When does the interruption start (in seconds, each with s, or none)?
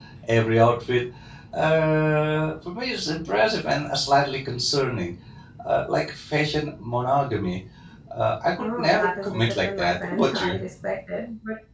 8.6 s